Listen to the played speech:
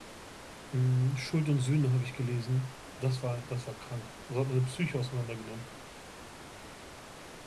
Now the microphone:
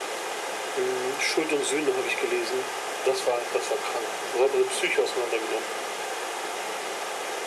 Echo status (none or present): present